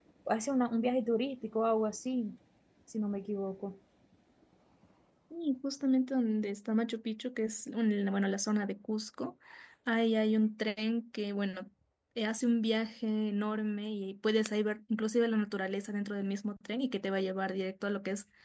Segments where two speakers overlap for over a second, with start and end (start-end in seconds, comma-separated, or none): none